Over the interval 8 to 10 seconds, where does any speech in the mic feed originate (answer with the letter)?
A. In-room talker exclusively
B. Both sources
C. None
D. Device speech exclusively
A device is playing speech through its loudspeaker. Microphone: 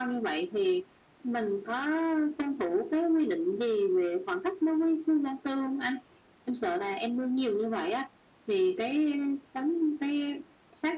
D